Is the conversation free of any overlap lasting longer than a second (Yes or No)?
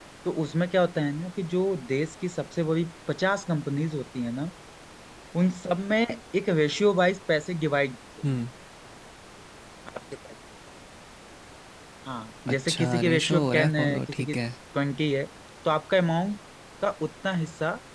No